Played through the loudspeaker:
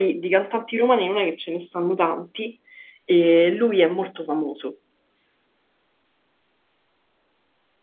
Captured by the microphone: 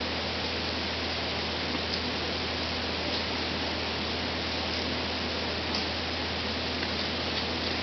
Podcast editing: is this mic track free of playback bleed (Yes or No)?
Yes